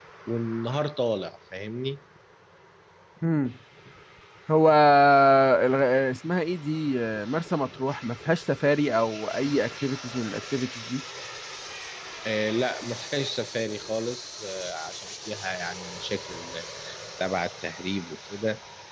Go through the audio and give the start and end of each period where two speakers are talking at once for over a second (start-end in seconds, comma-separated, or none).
none